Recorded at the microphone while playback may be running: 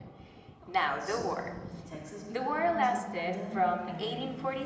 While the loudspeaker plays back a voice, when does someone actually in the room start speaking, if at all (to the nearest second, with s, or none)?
1 s